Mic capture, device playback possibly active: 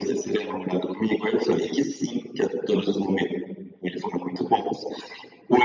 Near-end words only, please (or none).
none